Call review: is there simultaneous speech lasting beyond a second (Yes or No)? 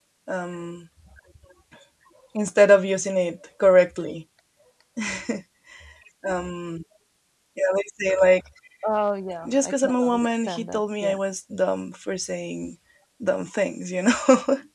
Yes